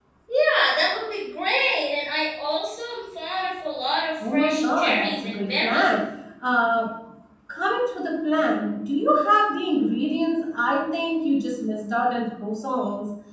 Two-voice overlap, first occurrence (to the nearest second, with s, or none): 4 s